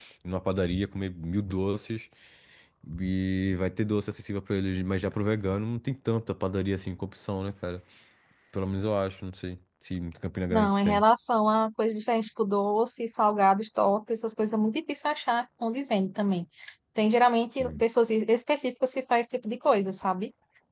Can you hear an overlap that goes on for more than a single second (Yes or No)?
No